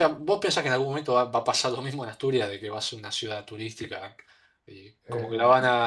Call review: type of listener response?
listening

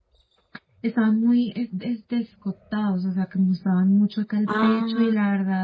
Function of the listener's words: listening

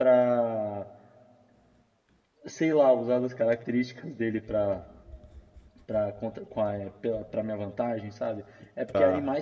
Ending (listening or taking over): listening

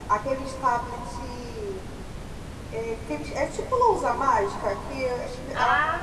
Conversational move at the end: listening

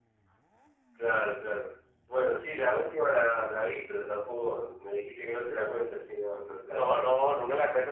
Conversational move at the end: taking over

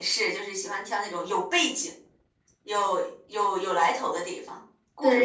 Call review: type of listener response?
taking over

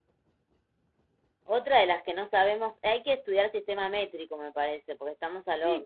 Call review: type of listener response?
taking over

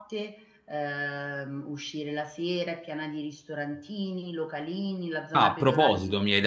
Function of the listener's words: taking over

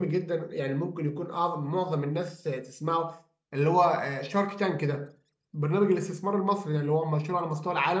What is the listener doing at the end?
listening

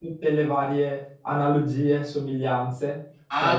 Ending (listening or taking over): taking over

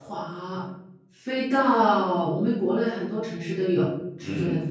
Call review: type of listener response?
taking over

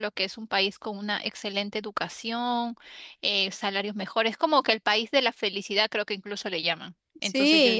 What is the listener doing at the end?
taking over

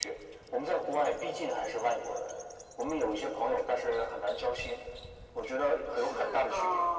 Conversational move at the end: taking over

